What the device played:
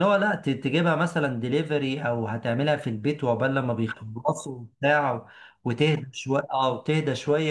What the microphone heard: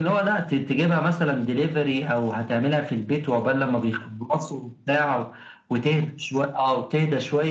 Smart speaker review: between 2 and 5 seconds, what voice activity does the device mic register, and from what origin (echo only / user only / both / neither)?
echo only